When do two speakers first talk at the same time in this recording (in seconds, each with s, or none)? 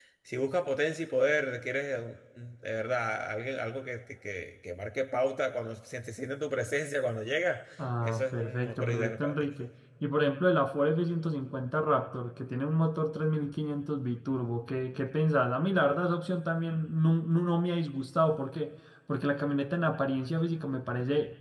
7.8 s